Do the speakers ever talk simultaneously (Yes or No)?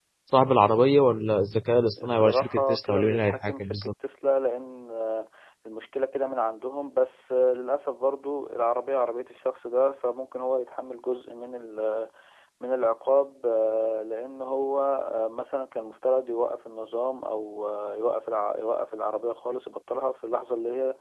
Yes